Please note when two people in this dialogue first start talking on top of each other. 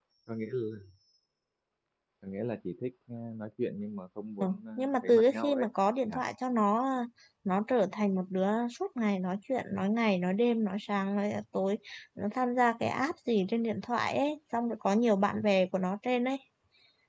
4.4 s

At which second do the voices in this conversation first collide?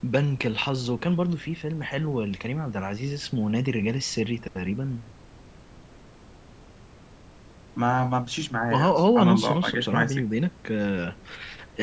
8.7 s

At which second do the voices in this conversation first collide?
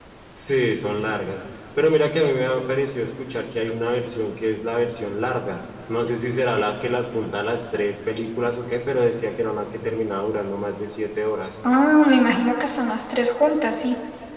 none

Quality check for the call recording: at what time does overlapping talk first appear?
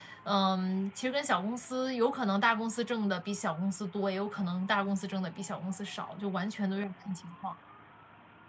none

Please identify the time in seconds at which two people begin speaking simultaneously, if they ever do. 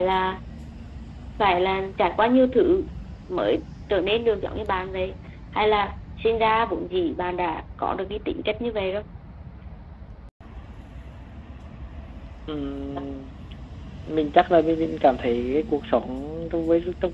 none

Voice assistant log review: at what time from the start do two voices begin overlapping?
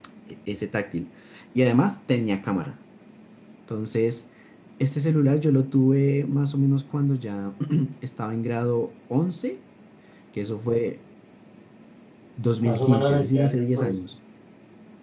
12.6 s

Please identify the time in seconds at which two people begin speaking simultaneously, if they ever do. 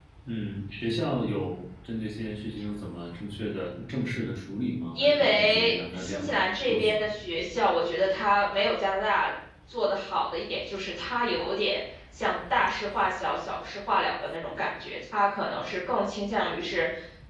5.0 s

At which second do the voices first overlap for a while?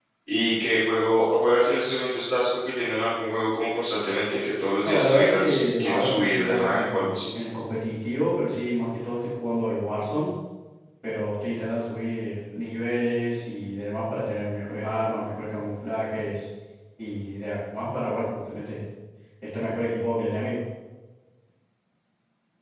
4.8 s

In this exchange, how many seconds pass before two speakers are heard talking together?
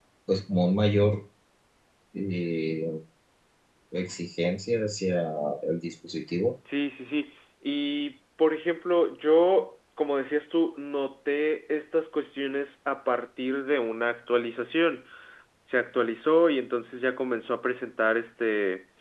none

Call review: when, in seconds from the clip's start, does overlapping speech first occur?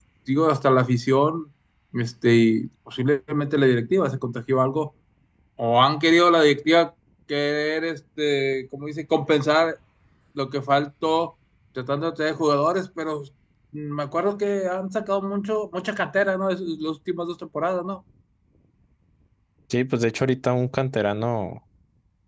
none

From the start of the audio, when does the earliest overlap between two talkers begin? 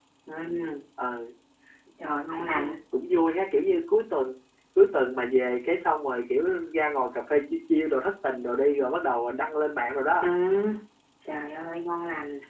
none

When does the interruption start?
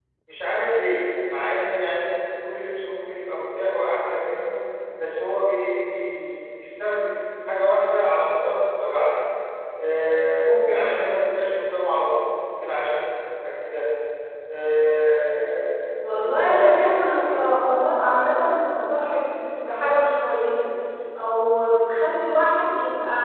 16.0 s

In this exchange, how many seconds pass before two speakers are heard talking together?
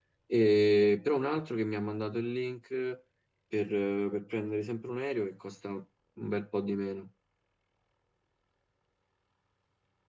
none

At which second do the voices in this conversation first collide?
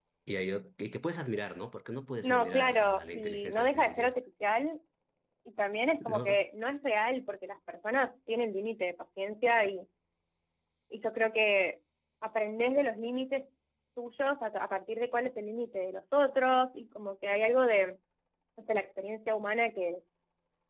2.2 s

